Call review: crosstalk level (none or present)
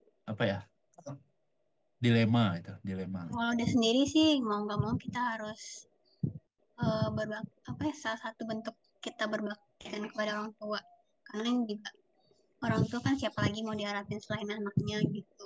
none